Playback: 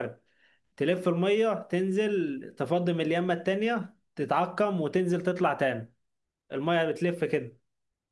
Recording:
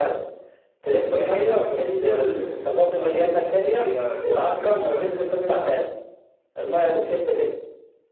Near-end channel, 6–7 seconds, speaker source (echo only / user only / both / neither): echo only